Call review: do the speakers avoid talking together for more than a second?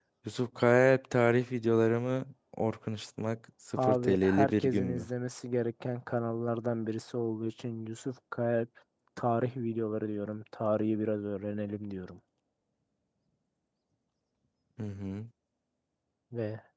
No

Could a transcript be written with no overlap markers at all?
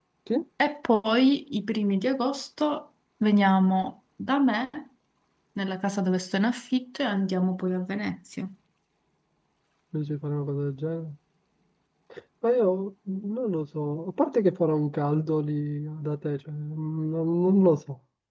Yes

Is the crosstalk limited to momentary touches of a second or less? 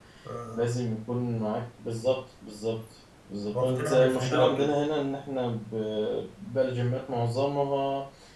No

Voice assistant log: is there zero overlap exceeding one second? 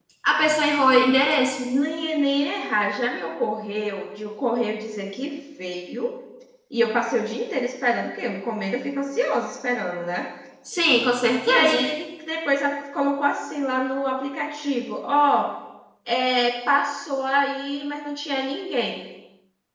Yes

